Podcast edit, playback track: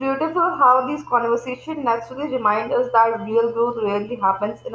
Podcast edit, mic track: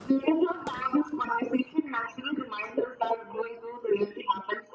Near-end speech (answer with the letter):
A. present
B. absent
B